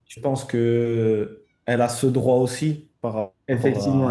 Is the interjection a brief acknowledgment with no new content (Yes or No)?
No